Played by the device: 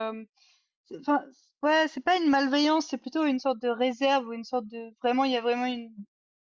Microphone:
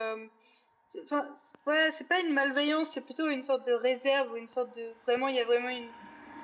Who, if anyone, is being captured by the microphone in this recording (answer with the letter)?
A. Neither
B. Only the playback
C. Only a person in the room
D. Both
B